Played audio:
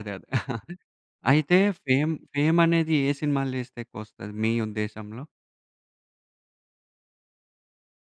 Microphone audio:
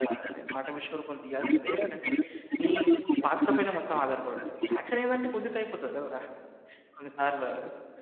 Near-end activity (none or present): present